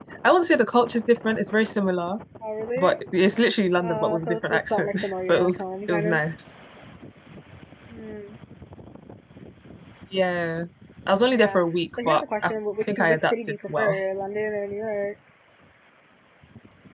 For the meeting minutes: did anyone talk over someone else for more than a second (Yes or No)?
Yes